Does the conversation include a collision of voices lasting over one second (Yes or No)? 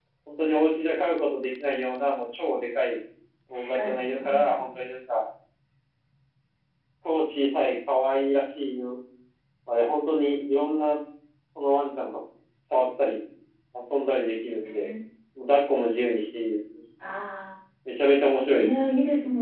Yes